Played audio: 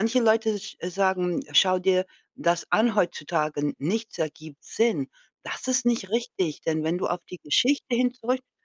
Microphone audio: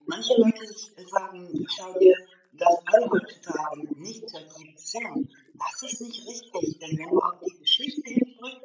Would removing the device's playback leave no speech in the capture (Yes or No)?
Yes